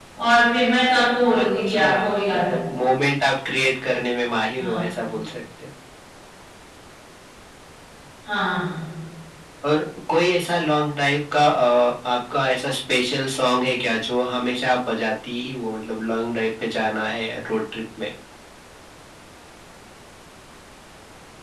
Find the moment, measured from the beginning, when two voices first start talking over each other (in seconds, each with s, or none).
1.3 s